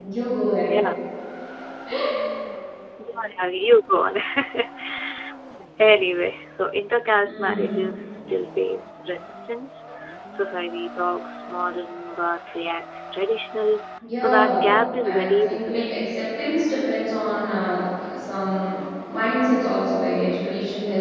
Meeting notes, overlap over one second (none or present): present